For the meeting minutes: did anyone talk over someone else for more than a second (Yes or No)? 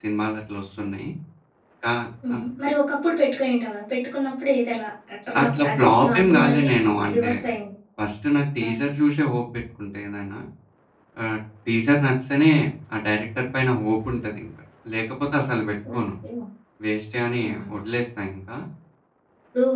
Yes